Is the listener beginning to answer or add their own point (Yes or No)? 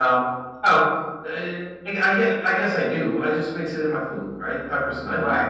Yes